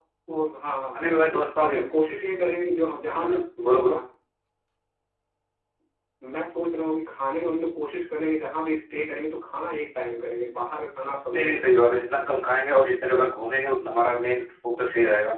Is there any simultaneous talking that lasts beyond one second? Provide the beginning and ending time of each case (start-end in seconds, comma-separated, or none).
none